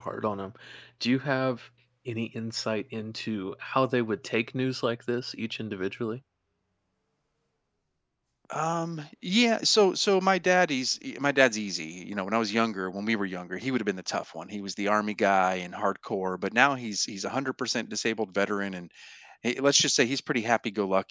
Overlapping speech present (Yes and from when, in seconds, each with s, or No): No